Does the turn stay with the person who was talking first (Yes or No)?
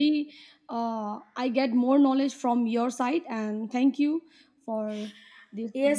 No